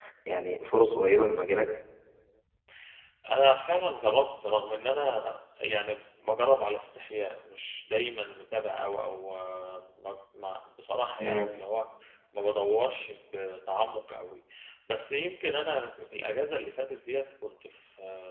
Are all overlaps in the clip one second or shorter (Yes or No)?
Yes